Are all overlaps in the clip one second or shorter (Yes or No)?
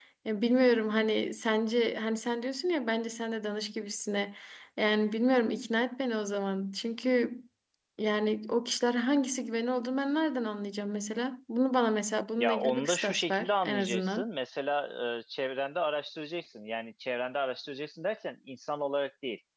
No